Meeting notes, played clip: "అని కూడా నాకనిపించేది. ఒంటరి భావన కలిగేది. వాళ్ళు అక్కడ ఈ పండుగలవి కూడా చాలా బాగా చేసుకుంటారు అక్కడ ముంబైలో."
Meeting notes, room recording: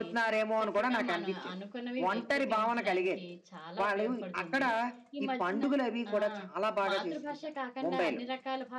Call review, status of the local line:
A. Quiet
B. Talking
B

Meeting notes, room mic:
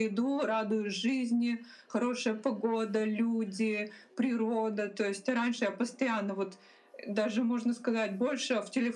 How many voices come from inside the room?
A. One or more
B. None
B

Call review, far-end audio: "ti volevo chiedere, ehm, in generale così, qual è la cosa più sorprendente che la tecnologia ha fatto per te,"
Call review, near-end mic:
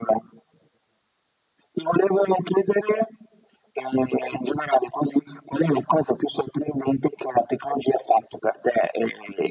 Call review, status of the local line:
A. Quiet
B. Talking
A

